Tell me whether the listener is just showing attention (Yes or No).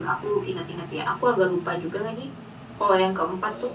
Yes